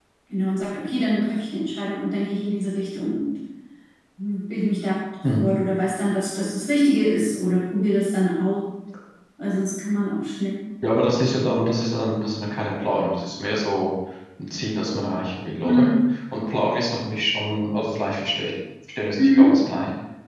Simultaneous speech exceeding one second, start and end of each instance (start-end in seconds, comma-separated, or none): none